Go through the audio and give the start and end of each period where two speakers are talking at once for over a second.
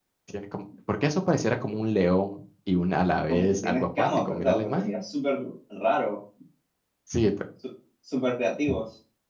3.3-5.0

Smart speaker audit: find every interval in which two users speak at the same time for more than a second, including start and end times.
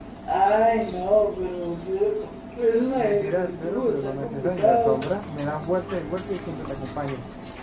3.0-5.2

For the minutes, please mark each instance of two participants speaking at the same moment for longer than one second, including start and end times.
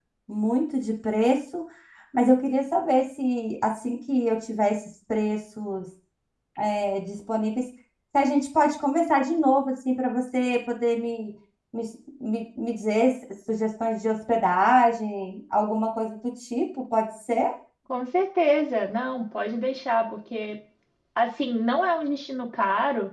none

